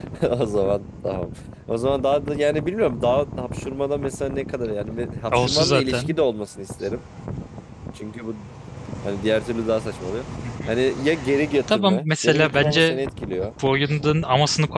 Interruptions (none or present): present